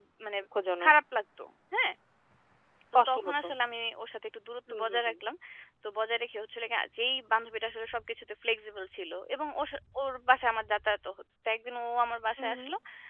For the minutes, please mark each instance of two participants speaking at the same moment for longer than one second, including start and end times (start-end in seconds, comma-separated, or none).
none